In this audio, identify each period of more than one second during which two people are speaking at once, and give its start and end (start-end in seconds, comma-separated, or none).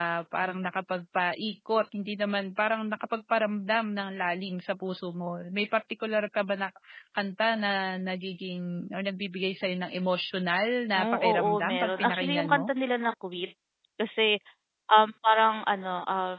10.9-12.7